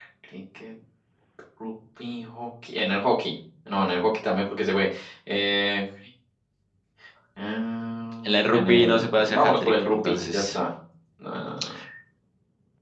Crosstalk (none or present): present